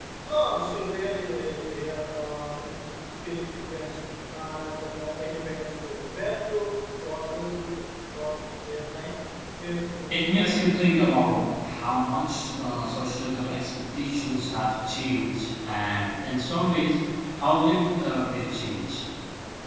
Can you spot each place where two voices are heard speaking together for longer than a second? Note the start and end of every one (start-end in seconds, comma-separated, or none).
10.1-11.7